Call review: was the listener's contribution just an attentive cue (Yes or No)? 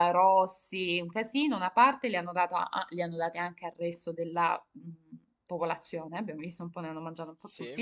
Yes